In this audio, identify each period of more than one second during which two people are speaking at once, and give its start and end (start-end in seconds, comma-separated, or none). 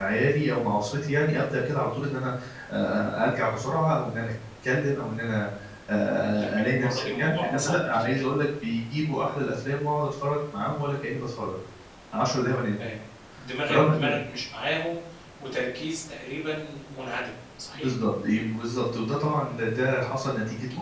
6.3-8.2